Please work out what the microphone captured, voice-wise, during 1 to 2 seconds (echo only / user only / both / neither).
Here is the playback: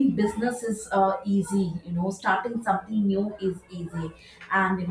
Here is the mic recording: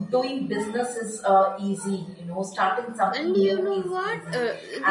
echo only